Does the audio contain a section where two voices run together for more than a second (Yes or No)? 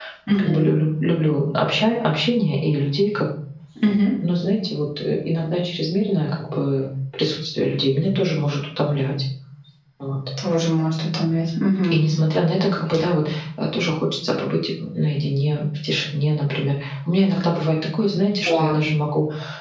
No